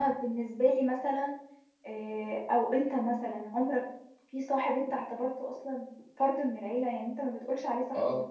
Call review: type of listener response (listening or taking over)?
taking over